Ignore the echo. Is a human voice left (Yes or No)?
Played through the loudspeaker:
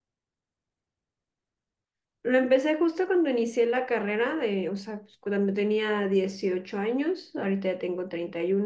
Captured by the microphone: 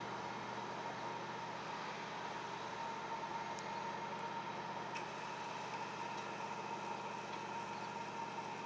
No